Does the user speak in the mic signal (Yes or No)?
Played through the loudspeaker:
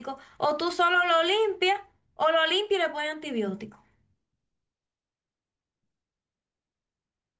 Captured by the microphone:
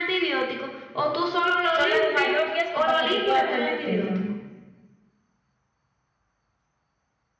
Yes